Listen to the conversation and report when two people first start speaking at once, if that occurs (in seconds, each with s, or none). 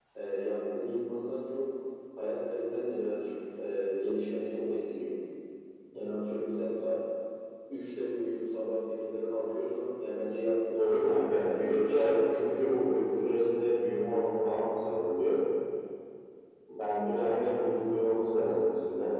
10.8 s